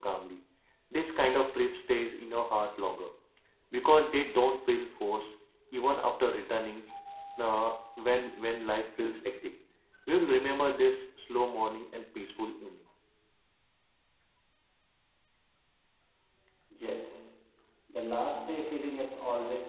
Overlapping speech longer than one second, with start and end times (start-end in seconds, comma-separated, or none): none